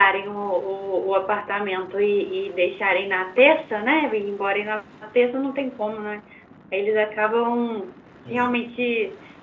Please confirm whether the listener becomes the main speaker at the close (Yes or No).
No